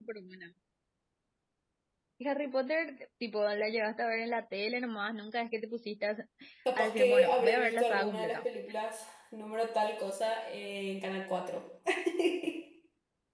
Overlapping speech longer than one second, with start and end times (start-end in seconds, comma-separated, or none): 6.8-8.4